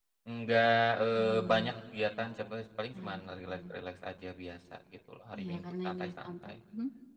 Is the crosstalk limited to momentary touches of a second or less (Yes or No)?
No